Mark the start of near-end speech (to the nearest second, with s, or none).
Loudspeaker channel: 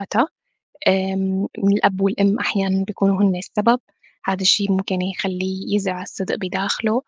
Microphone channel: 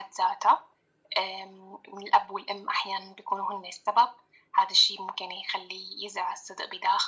none